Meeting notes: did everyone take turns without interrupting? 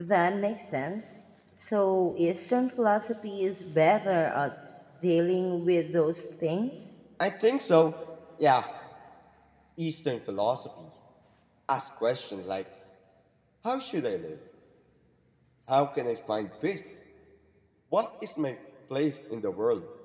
Yes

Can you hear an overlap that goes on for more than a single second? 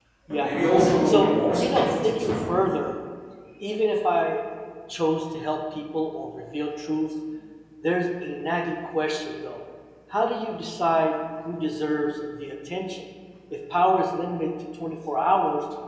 Yes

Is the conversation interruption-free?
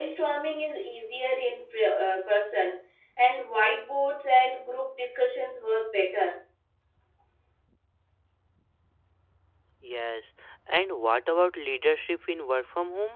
Yes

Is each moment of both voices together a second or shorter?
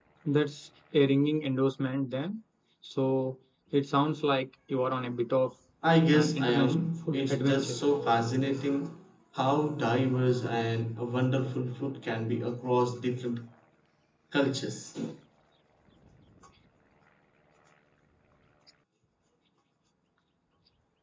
No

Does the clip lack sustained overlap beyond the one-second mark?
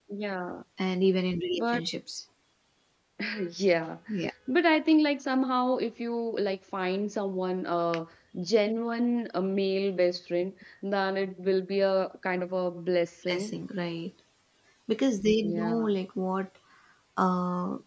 Yes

